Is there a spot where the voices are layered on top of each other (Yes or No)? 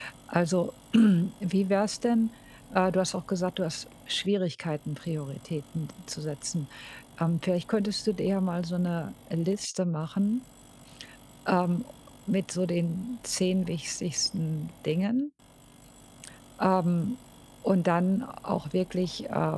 No